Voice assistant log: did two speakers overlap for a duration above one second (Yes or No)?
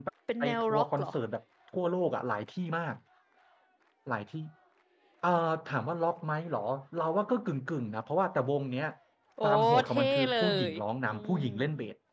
Yes